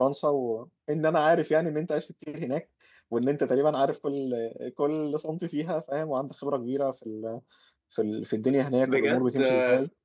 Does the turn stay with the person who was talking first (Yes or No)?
No